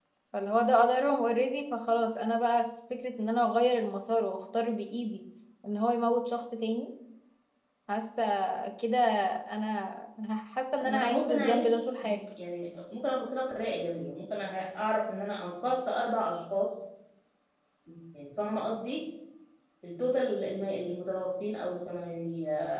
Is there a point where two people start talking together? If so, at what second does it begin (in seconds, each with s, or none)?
10.8 s